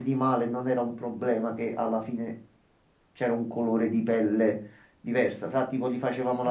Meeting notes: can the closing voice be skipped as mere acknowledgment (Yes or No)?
Yes